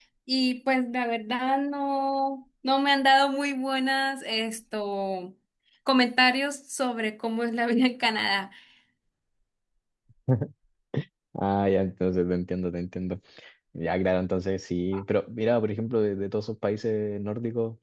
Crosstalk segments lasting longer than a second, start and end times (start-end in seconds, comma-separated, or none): none